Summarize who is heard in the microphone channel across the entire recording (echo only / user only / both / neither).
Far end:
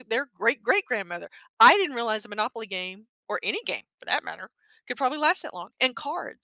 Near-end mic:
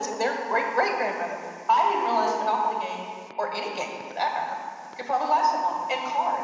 echo only